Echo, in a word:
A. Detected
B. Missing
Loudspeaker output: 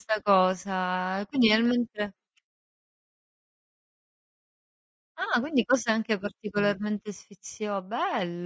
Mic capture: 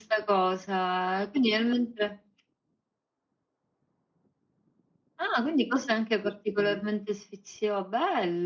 A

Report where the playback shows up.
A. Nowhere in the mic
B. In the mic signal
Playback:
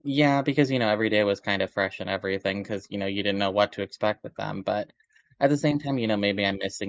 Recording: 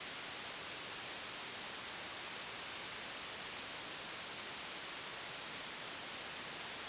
A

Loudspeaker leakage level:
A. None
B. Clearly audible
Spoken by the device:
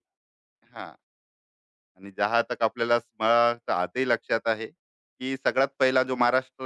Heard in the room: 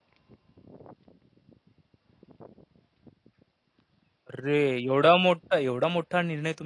A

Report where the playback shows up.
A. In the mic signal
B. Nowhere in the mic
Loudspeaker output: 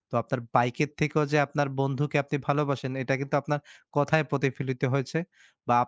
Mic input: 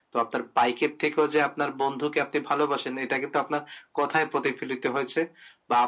A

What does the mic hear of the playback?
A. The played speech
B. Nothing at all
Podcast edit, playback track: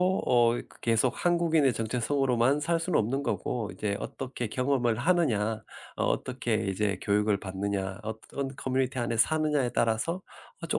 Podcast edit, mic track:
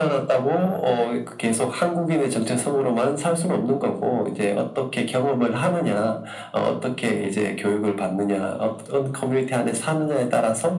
A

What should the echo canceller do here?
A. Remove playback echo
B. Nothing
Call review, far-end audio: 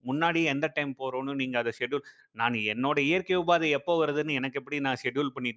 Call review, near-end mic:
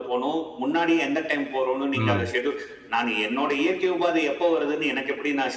A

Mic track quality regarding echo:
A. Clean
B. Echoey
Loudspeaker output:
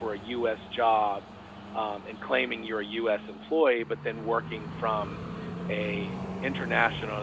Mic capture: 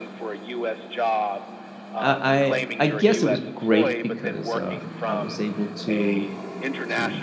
B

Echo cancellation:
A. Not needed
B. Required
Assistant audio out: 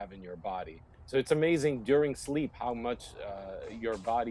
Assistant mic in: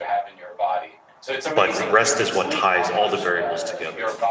B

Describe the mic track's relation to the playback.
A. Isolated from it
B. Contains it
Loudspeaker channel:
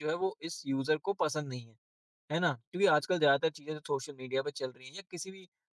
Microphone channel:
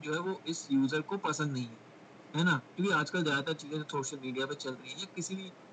B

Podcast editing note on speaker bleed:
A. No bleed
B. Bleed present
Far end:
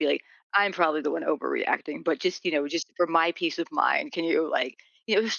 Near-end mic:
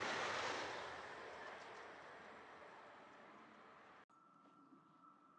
A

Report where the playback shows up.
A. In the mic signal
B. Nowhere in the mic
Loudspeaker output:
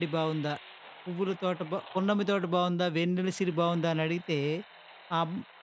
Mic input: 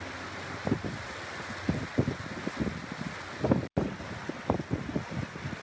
B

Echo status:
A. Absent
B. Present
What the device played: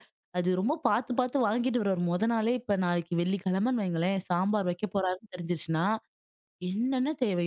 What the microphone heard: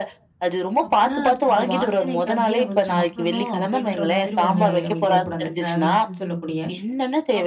B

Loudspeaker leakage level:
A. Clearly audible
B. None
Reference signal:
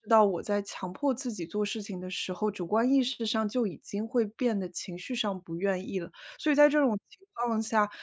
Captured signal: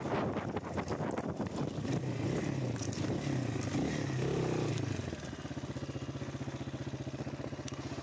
B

